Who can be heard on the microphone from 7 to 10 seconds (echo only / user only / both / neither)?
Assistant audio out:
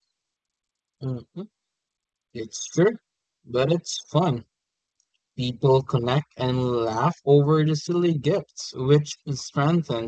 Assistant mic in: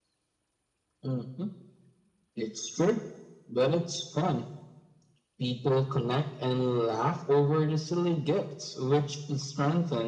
echo only